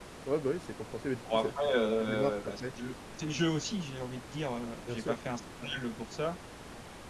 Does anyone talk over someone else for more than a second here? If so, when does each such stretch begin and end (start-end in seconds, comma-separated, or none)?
1.3-2.7